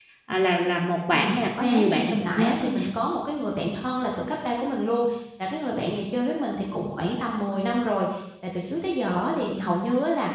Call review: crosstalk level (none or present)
present